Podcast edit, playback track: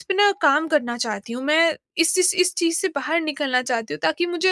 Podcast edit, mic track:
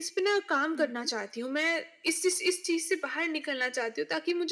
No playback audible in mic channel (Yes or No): No